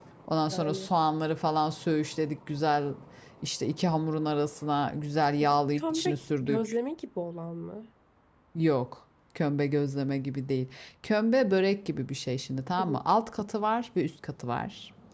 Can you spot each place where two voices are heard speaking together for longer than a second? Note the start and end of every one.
5.4-6.7

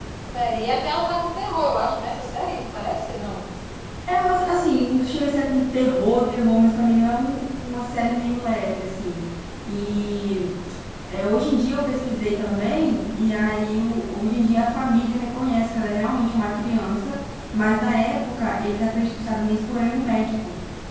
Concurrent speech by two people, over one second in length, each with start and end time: none

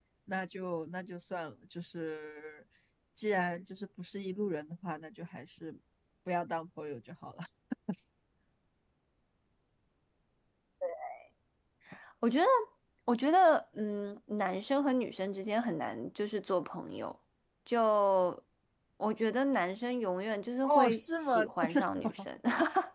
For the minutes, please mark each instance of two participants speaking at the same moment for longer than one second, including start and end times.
20.6-22.1

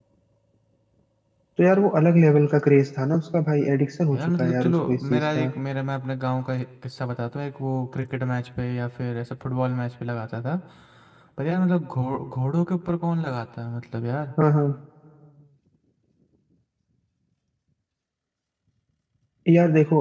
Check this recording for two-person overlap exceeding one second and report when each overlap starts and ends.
4.1-5.5

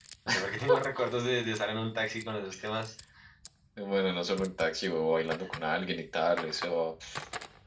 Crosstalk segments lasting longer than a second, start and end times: none

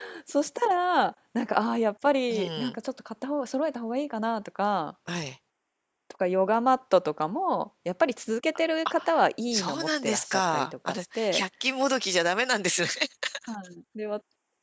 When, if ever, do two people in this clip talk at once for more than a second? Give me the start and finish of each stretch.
9.5-11.4

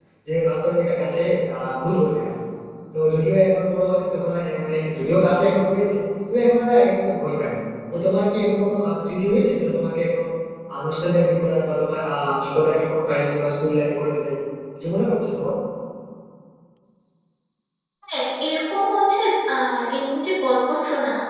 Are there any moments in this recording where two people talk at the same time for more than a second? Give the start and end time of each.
none

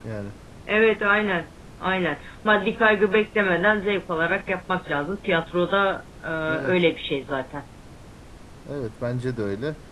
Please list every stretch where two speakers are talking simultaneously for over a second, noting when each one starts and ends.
none

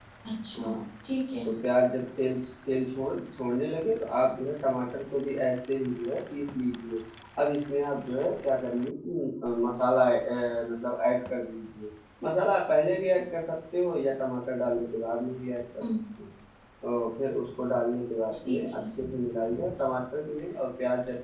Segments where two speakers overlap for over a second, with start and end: none

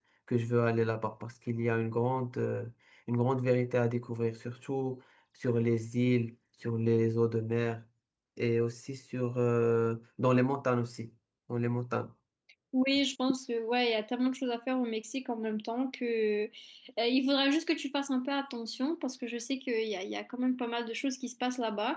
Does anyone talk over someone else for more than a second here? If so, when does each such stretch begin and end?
none

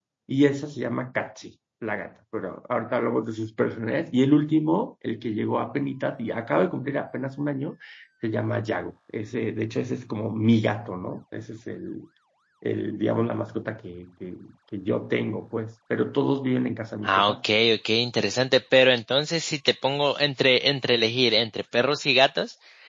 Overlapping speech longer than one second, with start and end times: none

